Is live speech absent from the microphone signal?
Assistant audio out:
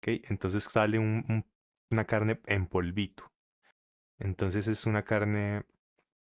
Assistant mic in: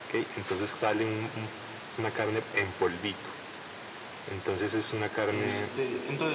No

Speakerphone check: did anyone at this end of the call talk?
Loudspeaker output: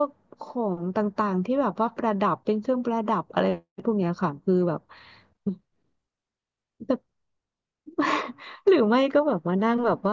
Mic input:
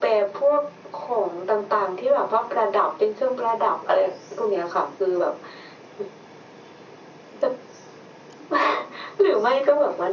No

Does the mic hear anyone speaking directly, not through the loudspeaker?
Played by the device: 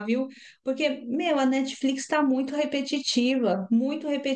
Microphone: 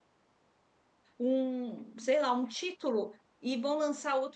Yes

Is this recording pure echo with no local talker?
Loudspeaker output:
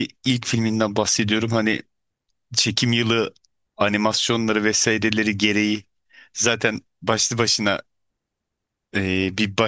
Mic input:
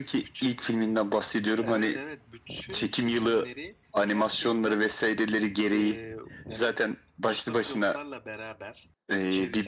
No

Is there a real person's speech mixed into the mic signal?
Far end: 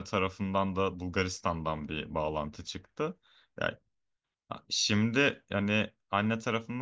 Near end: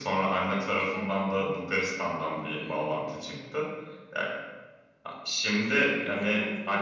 Yes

